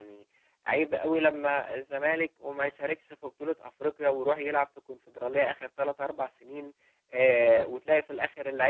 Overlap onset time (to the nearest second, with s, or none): none